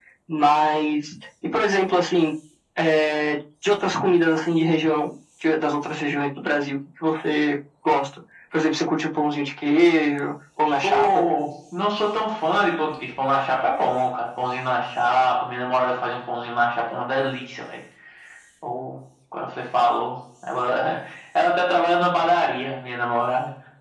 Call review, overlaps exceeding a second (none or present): none